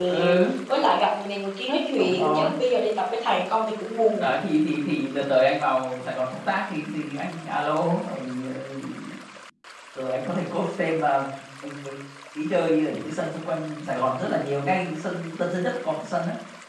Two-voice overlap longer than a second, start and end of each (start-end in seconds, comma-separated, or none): none